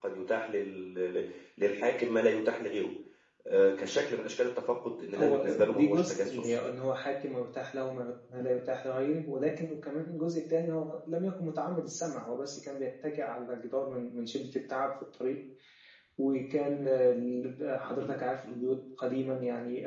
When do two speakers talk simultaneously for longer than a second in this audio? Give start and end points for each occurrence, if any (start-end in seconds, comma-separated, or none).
5.2-6.5